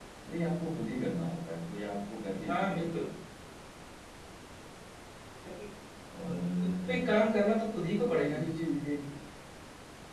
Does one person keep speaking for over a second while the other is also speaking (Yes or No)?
No